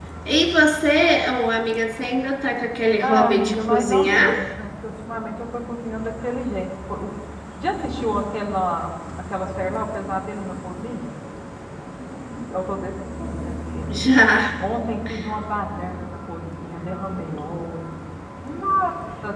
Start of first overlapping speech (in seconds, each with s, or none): 3.0 s